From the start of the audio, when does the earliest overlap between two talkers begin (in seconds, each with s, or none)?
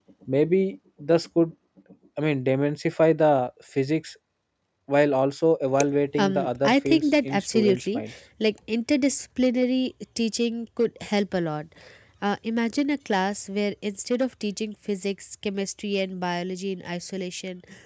6.2 s